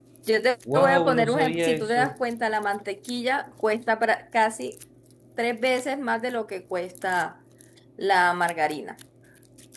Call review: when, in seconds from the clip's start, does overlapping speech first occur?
0.7 s

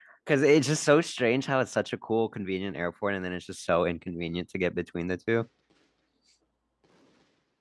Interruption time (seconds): none

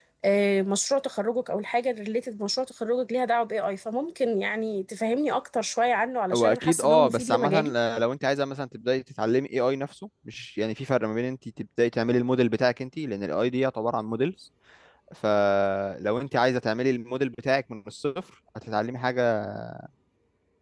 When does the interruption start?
6.3 s

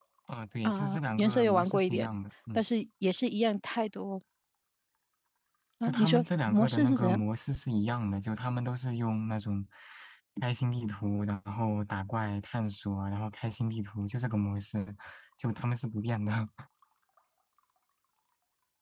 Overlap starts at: 0.7 s

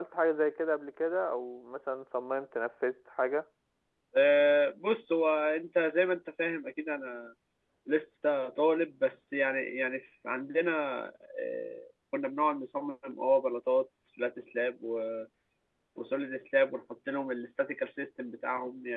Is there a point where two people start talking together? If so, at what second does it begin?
none

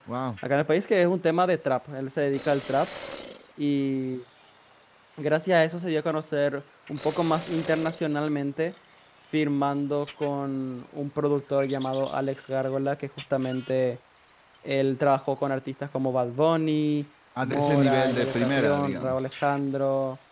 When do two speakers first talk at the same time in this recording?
17.4 s

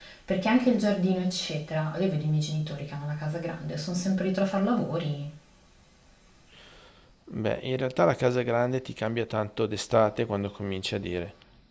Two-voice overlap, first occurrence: none

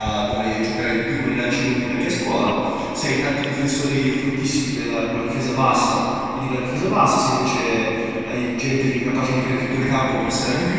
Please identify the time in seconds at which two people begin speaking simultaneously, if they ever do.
none

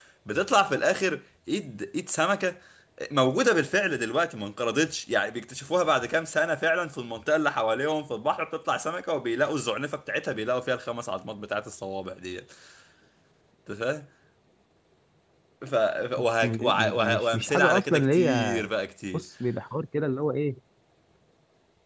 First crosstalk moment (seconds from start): 16.2 s

